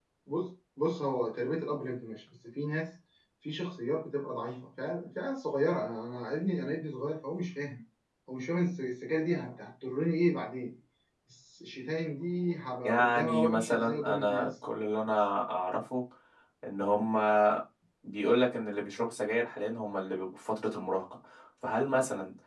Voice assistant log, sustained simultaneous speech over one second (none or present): present